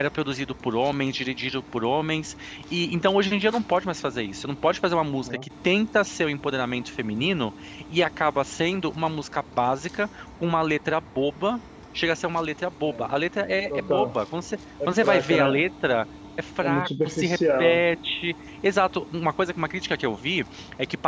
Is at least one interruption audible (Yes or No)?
Yes